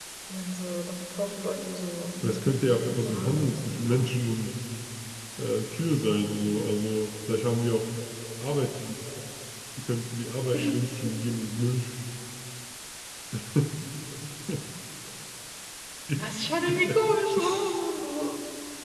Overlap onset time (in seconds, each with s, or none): 2.2 s